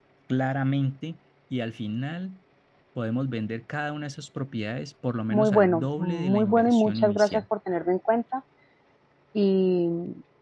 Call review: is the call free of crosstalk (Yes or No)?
No